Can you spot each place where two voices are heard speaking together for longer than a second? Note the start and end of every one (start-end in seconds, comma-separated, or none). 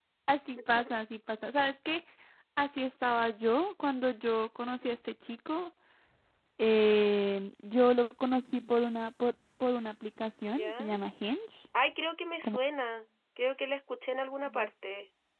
none